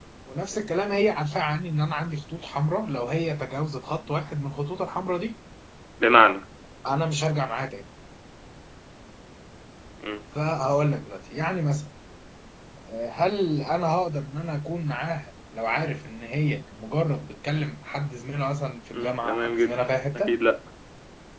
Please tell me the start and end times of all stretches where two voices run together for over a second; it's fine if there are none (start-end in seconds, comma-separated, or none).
18.9-20.3